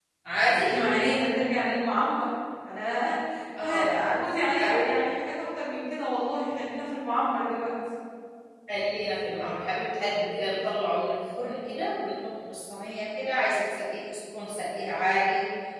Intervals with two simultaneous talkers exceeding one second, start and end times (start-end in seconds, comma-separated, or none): none